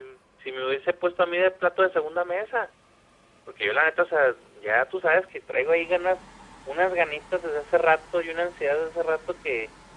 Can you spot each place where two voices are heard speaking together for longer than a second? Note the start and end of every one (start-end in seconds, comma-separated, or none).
none